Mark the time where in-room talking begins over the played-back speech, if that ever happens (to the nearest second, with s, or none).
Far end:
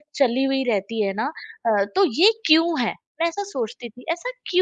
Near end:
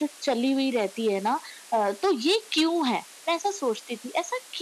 none